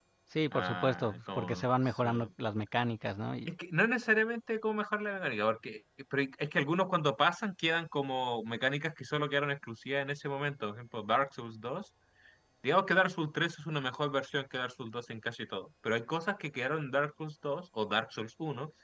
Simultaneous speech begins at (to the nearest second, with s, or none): 1 s